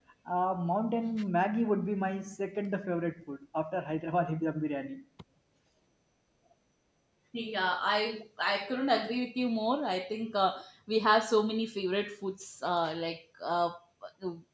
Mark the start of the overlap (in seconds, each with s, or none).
none